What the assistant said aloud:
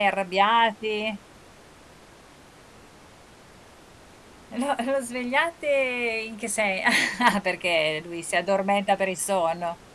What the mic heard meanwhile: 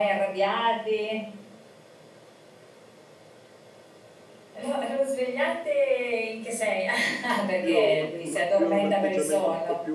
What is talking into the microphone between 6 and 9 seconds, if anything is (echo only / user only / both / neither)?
both